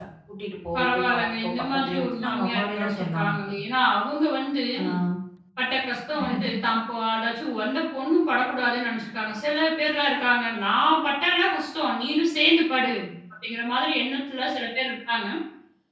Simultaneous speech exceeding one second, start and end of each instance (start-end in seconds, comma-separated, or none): 0.8-3.3